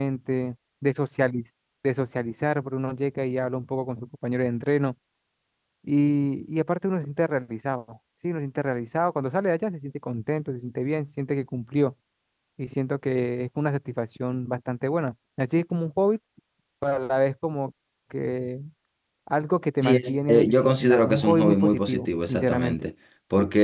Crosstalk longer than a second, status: present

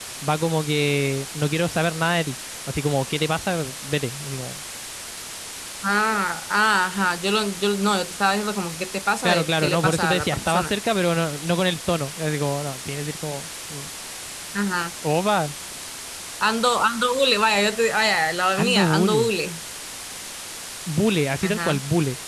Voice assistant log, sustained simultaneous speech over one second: present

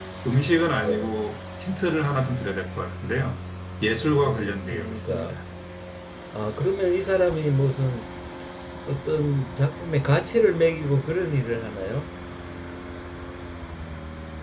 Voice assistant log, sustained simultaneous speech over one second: present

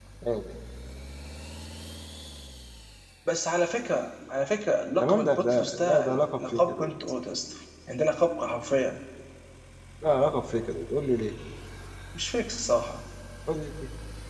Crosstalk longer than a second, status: present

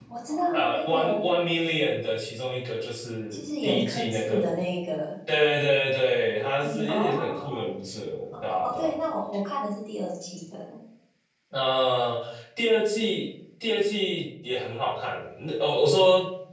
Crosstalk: present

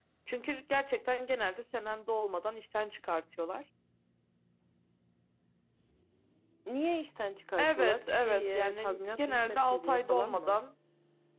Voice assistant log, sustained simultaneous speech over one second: present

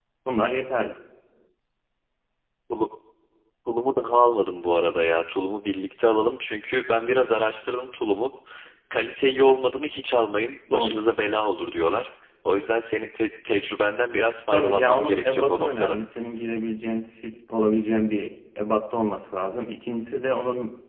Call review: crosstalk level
present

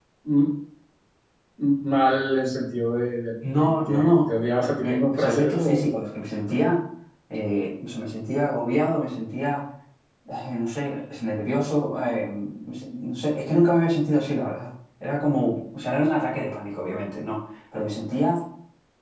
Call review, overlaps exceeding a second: present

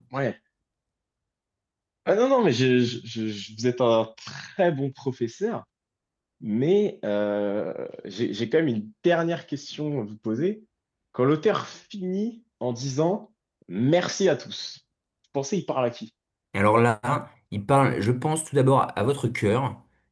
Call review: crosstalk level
none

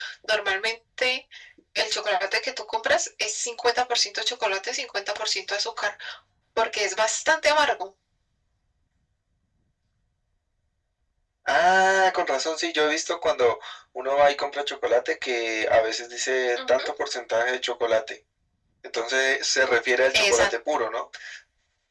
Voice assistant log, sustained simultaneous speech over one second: none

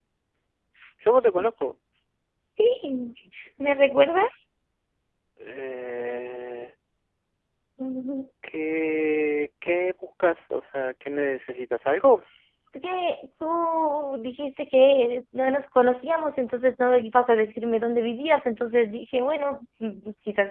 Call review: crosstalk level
none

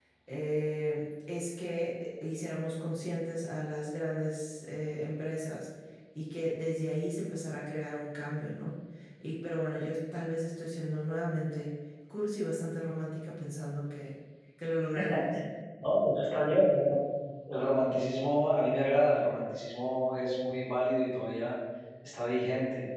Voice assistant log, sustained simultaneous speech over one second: none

